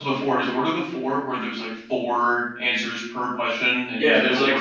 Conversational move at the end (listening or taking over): taking over